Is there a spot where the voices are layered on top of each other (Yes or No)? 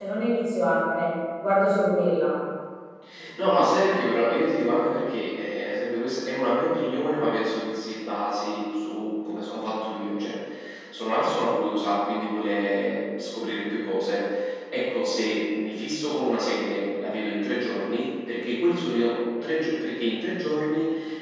No